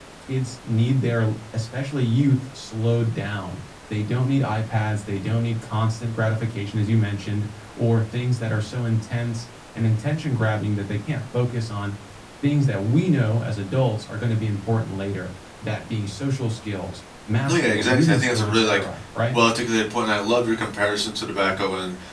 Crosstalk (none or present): present